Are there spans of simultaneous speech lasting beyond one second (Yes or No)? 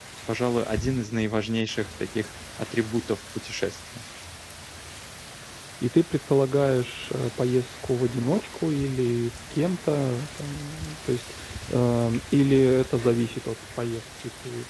No